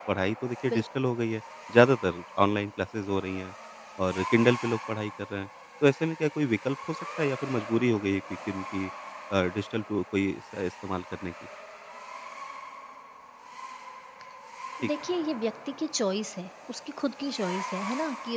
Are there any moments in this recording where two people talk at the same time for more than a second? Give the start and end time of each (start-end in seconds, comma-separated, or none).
none